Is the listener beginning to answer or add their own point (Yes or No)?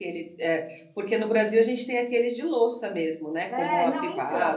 Yes